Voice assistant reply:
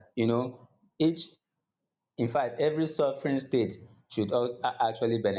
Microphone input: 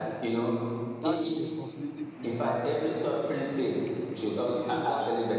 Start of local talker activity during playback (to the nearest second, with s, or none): 1 s